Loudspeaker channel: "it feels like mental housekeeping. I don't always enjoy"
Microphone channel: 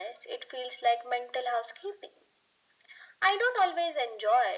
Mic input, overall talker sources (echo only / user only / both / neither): echo only